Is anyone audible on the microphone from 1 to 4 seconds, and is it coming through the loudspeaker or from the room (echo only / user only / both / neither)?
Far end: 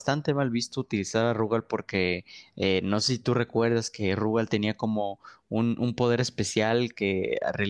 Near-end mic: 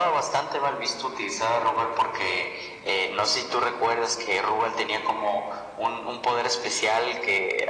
echo only